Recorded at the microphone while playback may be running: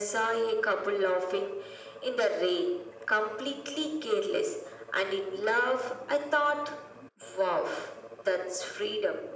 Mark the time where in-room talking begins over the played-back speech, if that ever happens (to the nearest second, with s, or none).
none